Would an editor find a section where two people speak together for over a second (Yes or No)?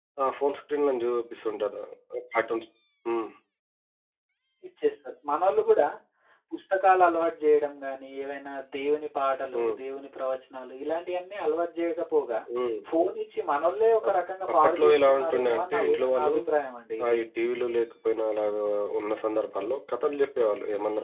Yes